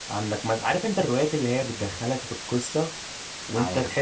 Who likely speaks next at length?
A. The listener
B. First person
B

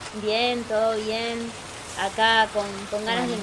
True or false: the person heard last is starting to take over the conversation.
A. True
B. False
B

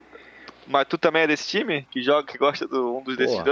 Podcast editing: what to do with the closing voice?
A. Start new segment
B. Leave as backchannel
A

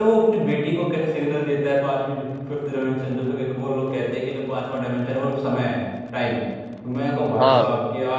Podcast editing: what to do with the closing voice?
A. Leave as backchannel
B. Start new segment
A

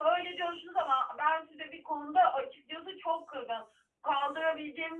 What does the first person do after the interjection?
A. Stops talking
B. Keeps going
B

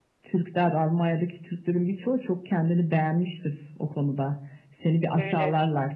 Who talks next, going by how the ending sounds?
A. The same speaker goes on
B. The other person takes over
A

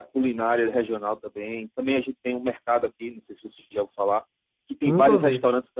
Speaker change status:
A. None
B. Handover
A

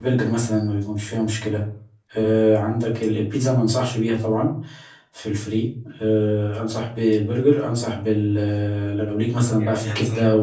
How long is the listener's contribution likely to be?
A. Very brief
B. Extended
B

